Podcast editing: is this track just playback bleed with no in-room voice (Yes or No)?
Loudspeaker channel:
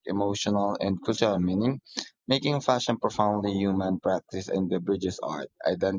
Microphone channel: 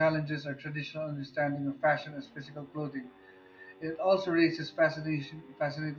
No